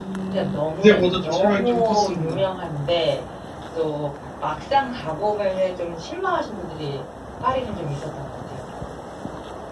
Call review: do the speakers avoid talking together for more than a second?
No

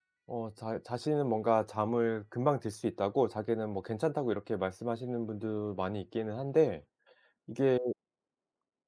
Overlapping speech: No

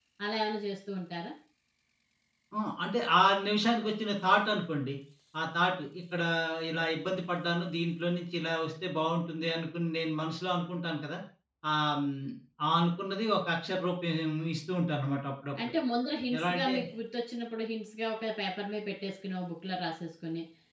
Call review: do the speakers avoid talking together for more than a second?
Yes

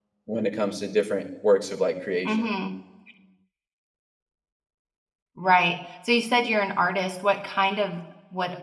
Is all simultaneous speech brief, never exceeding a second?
Yes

